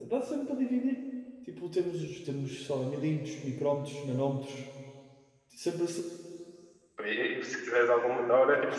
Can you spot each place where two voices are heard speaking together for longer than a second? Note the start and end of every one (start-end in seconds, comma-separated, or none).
none